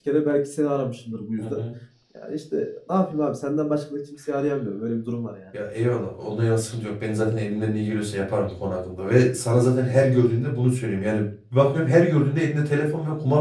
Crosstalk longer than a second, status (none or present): none